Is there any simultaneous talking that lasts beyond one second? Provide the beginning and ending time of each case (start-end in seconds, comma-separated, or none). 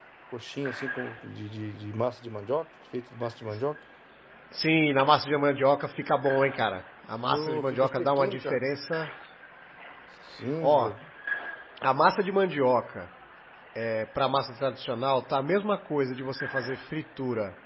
7.2-8.6